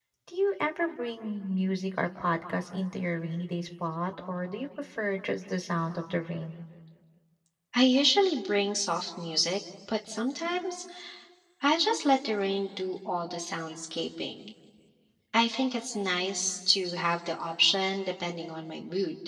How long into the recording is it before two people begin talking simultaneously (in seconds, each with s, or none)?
none